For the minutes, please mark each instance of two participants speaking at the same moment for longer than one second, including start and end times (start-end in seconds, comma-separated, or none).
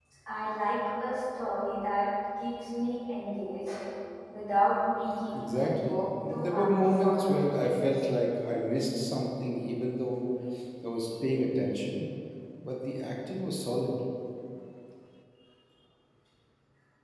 5.3-7.4